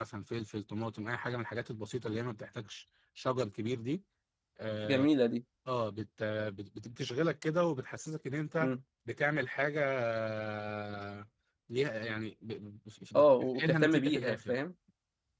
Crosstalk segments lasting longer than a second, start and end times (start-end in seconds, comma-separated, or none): 13.1-14.5